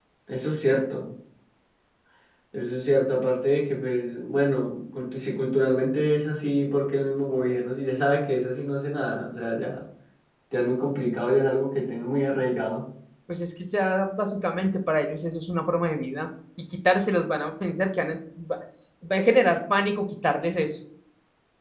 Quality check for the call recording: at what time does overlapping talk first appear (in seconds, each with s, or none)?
none